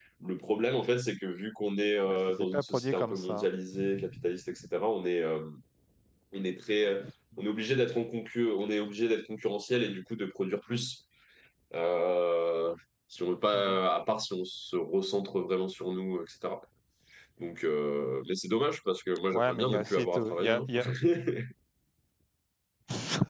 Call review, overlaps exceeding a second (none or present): present